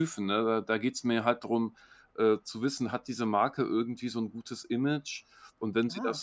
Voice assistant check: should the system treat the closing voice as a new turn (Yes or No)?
No